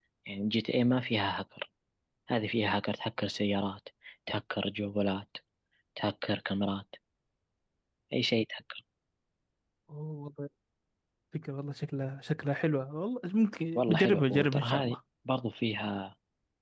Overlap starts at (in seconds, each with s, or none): 13.8 s